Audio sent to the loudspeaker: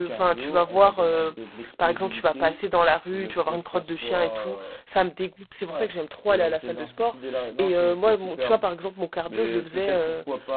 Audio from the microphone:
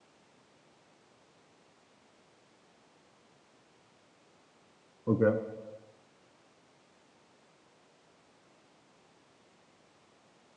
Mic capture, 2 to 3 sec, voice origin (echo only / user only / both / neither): neither